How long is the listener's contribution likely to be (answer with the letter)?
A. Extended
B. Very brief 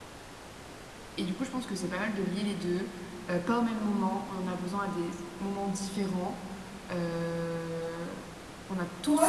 A